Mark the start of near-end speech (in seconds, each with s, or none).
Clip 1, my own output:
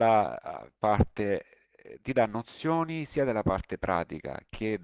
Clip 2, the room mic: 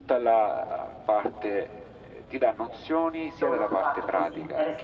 3.3 s